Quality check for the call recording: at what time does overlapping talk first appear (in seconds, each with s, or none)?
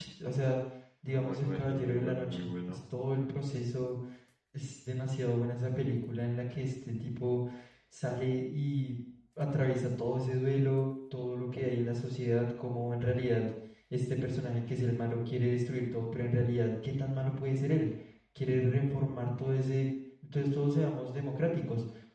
1.1 s